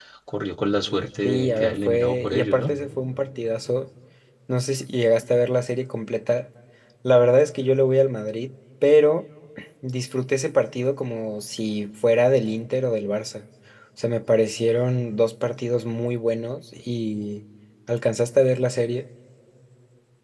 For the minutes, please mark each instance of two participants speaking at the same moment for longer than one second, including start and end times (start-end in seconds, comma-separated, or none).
1.2-2.8